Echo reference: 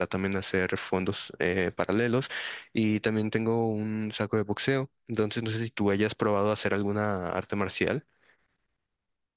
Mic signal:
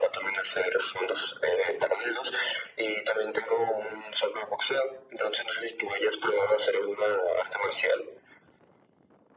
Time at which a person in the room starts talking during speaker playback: none

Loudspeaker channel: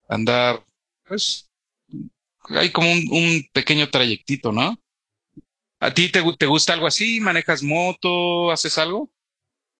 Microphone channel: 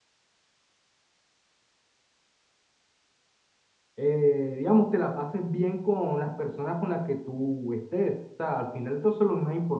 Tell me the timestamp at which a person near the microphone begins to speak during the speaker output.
4.0 s

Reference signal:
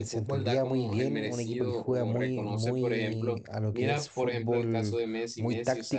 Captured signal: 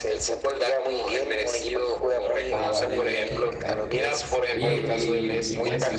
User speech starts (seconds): 2.5 s

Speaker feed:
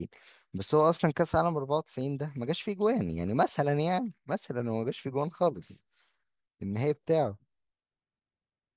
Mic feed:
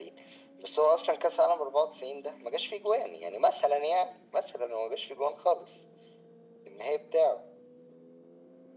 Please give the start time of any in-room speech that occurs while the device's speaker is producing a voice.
none

